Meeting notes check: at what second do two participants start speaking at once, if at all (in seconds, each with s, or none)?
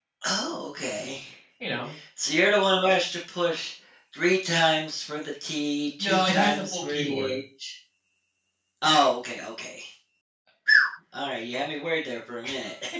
6.0 s